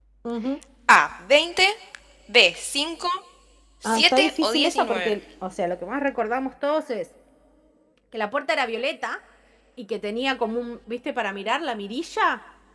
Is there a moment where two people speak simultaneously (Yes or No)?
Yes